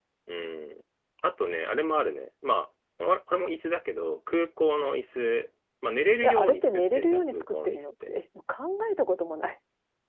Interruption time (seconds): 6 s

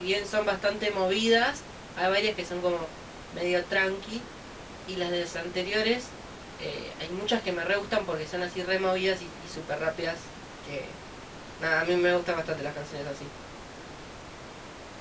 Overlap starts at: none

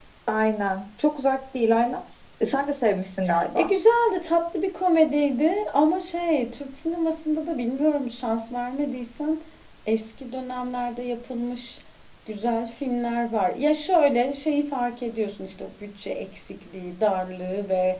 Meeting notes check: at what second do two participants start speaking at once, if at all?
none

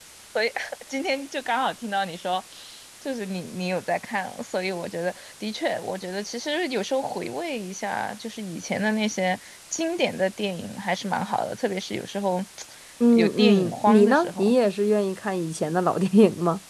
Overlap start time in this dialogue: 13 s

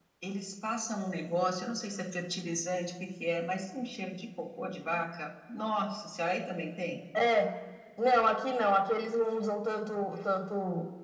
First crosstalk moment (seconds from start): none

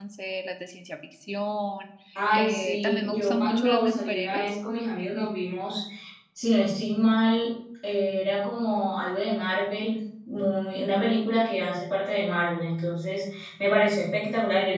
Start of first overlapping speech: 2 s

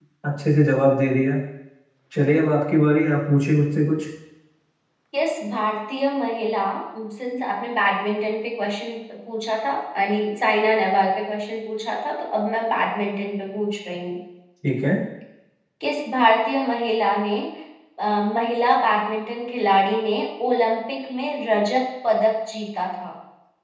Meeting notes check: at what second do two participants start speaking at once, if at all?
none

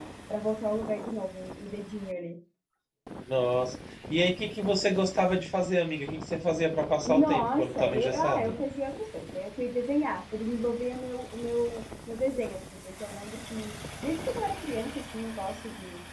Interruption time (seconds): 7 s

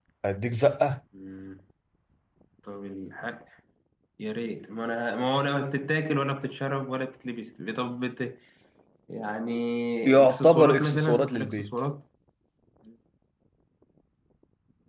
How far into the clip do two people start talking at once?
10 s

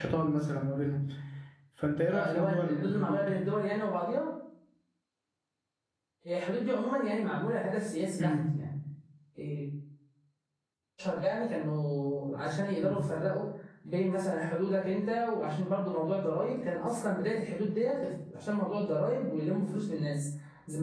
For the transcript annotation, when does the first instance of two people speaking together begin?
2 s

